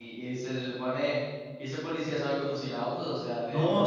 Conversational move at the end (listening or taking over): taking over